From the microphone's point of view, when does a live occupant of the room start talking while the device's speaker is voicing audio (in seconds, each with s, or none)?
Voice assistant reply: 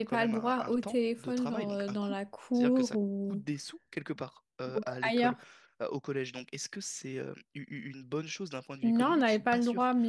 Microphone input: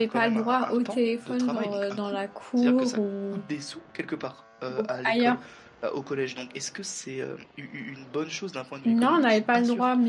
none